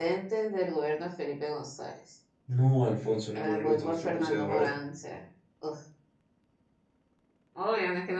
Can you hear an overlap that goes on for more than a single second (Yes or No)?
Yes